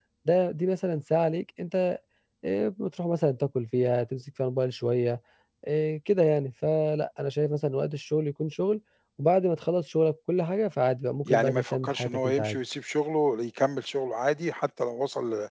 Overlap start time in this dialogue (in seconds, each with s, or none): 11.2 s